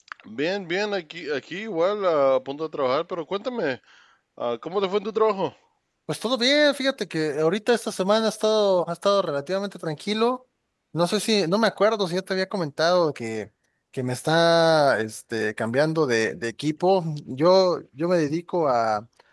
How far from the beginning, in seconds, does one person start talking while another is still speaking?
none

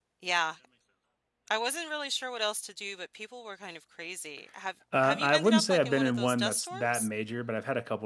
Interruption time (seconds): 4.9 s

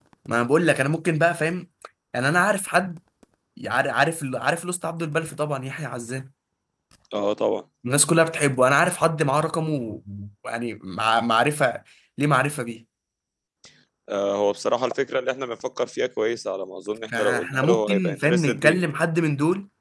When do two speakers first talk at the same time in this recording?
17.1 s

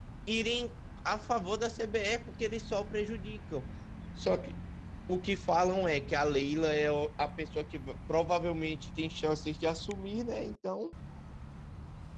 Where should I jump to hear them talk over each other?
none

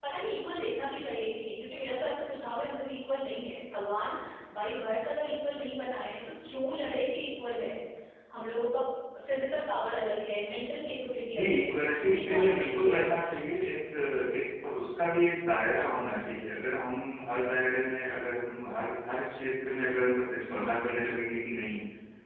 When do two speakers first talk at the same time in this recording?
11.3 s

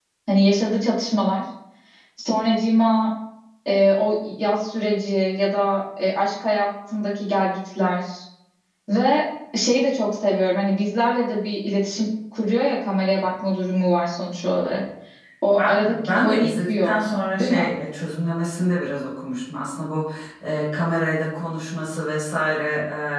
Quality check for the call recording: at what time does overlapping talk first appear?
15.6 s

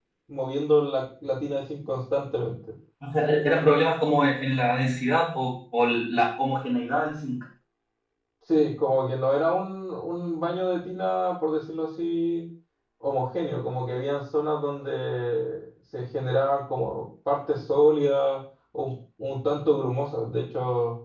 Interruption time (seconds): none

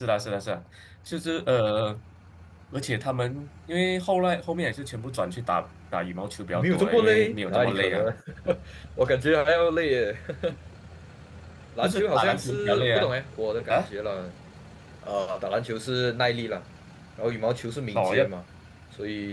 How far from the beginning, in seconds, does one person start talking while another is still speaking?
6.5 s

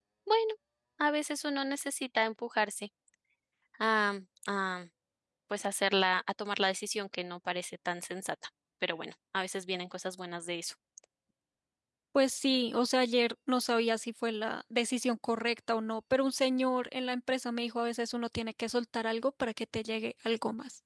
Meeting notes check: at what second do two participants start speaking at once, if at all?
none

